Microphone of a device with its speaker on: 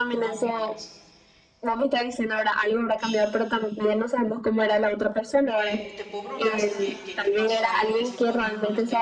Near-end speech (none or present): present